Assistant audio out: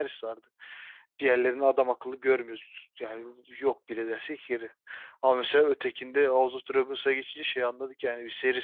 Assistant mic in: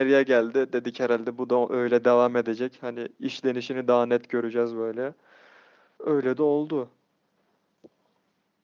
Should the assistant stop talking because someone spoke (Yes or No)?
Yes